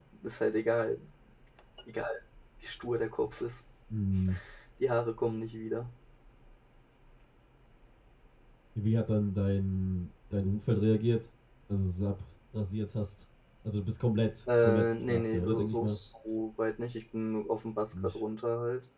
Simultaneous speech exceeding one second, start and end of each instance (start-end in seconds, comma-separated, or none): 14.6-16.0